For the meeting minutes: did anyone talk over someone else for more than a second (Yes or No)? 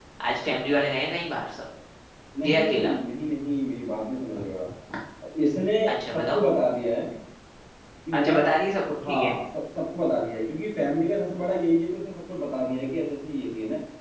No